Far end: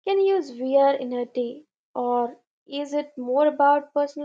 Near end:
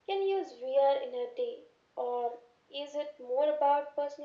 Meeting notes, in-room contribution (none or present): none